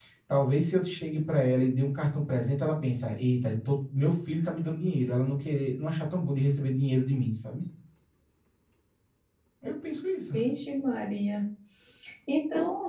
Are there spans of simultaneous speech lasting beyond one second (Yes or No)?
No